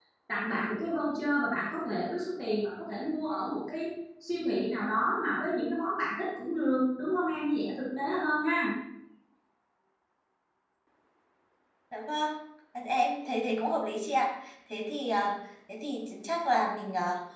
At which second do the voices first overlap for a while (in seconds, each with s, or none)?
none